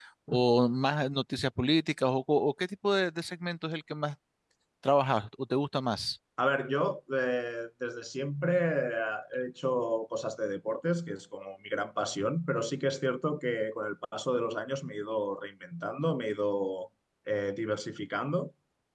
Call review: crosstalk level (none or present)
none